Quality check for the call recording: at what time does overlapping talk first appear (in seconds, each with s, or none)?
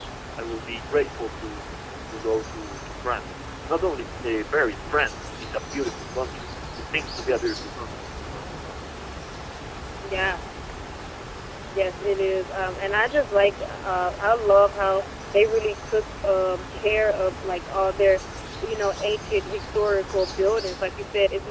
none